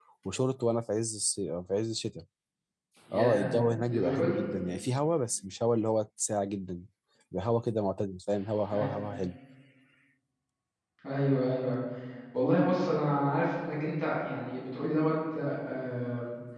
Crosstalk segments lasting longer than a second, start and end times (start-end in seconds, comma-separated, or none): none